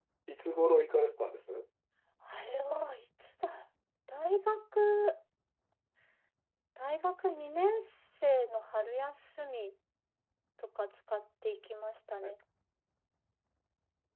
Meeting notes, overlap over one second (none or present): none